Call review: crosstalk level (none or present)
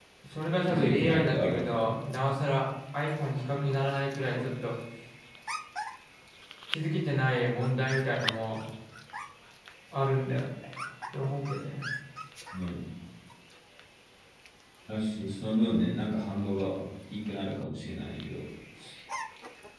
present